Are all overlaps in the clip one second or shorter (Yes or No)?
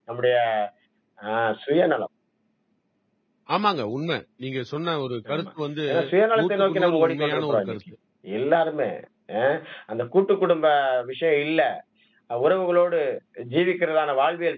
No